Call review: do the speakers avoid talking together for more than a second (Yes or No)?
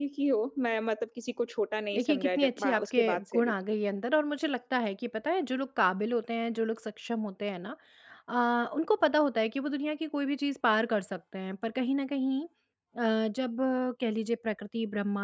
No